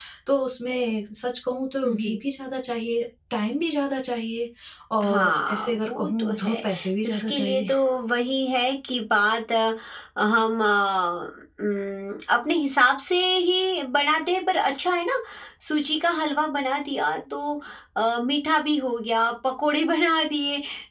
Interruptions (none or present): present